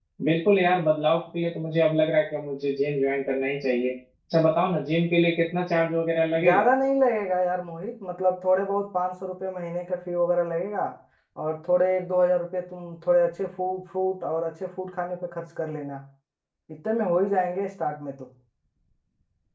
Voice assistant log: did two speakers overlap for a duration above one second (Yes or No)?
No